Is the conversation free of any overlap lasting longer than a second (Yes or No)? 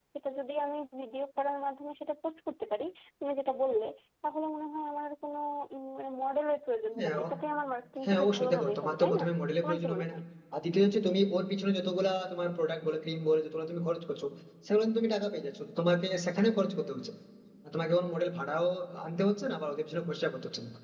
No